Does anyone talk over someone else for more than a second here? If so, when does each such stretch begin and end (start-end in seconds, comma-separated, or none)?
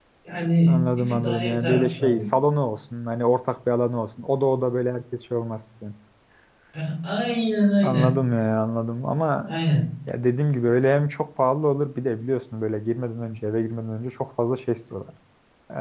0.7-2.3